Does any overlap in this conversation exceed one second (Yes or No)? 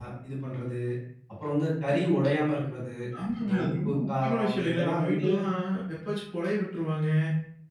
Yes